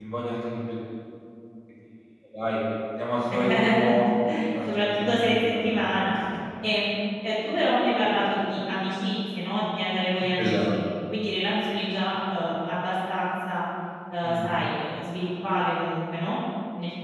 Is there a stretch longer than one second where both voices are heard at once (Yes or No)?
Yes